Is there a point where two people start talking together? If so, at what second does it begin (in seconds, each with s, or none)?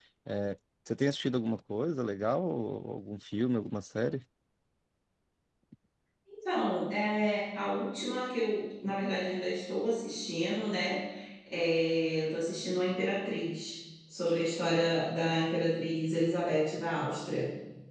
none